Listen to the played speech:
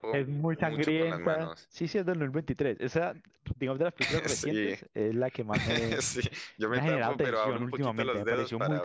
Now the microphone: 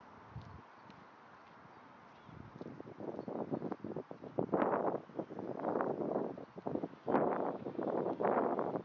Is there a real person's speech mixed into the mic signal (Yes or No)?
No